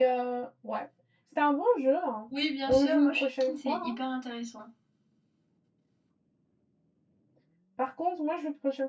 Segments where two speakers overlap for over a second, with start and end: 2.7-4.0

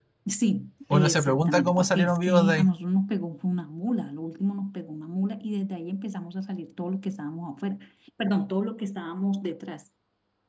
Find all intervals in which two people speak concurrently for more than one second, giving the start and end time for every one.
0.9-2.7

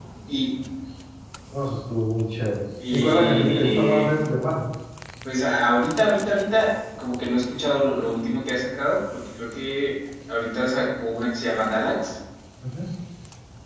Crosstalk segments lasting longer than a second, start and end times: 2.9-4.1

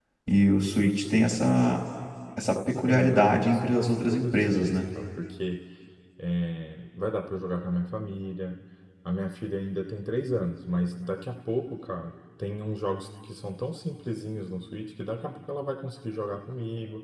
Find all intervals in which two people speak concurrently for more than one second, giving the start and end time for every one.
2.9-4.8

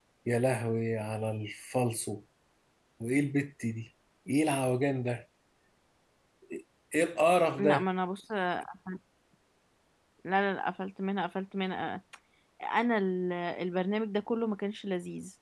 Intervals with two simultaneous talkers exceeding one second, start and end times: none

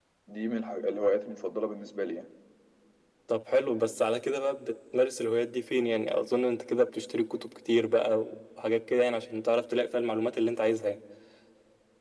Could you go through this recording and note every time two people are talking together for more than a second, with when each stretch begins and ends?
none

